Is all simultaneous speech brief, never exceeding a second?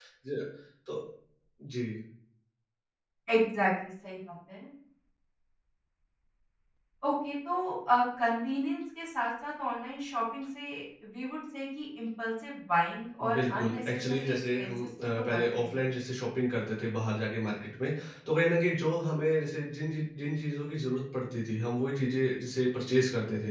No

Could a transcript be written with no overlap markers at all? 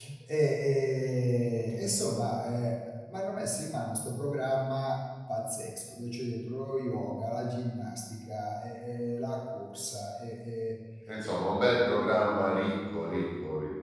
Yes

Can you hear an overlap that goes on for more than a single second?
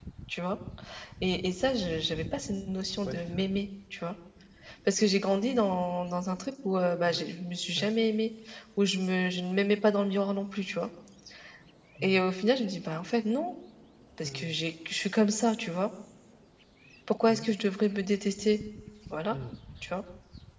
No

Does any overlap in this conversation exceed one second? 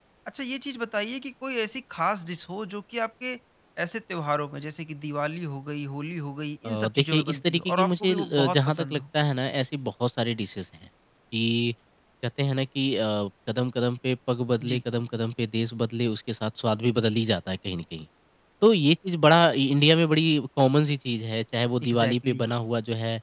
Yes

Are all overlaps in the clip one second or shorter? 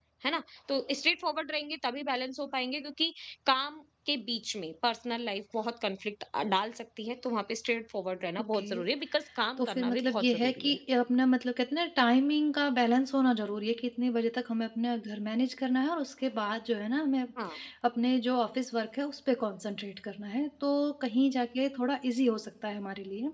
No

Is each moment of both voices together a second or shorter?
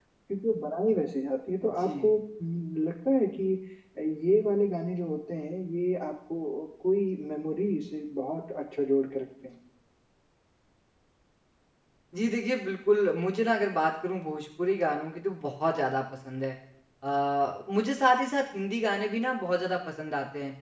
Yes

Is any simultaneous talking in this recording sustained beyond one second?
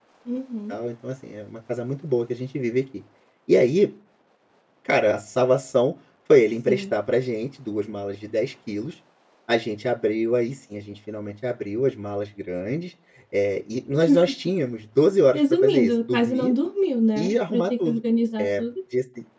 Yes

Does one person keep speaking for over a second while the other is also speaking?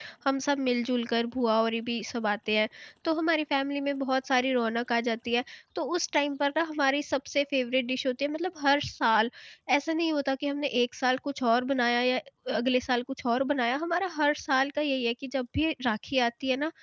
No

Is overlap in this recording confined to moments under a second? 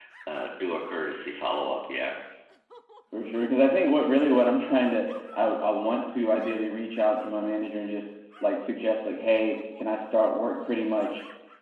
Yes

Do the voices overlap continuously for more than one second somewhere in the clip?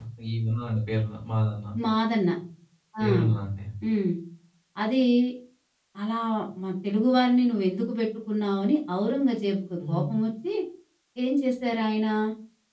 No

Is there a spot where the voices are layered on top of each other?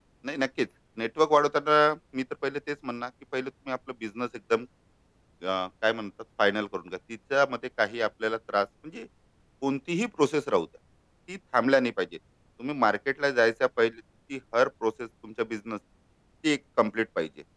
No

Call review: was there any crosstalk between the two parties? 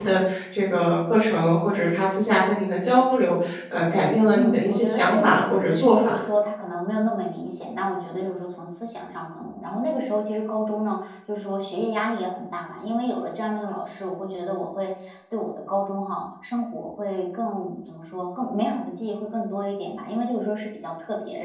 Yes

